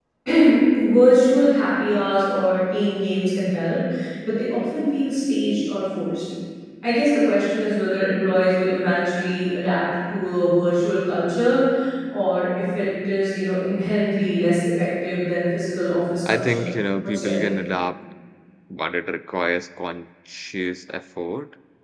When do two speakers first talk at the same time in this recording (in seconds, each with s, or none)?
16.3 s